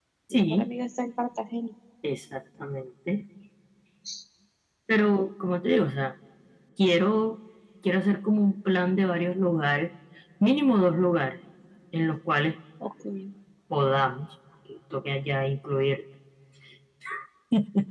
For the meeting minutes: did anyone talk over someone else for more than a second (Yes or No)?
No